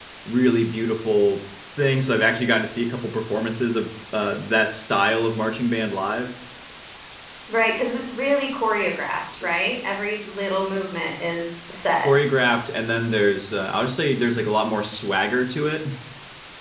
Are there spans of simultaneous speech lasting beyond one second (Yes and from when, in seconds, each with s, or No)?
No